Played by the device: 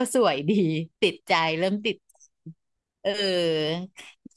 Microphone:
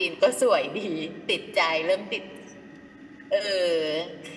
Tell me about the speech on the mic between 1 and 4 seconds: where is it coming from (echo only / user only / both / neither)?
echo only